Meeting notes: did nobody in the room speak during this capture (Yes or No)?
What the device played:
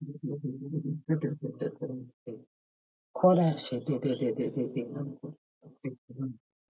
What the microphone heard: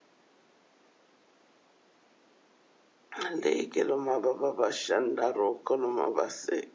No